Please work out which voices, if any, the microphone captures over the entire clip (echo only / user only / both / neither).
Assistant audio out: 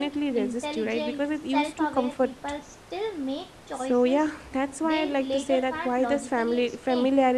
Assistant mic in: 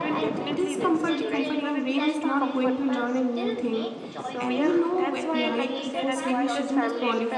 both